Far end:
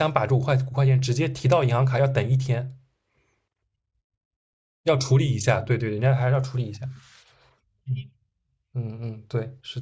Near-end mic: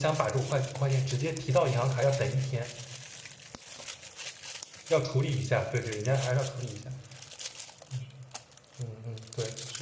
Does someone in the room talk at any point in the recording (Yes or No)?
No